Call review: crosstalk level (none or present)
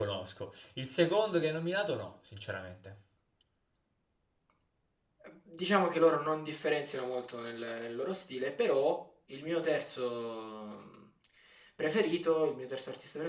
none